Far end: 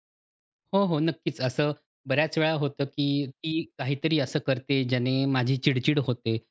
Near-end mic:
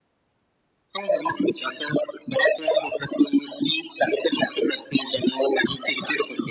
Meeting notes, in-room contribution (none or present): none